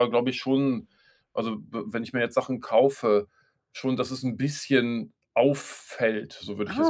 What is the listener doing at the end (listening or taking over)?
taking over